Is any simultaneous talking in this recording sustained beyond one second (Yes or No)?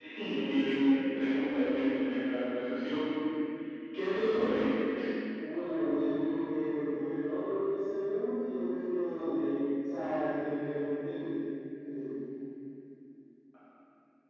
No